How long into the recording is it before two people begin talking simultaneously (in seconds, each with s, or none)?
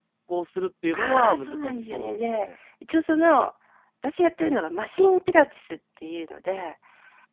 0.9 s